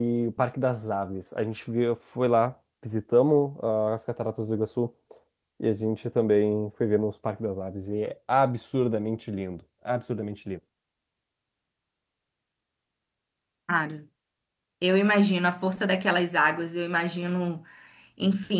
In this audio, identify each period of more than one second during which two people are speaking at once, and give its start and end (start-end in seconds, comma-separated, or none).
none